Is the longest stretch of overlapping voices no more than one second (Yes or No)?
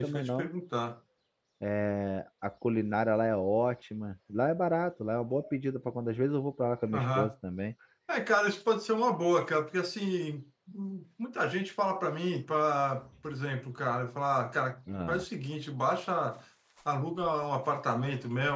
Yes